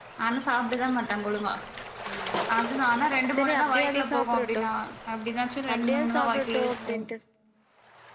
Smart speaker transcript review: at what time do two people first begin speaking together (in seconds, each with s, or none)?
3.4 s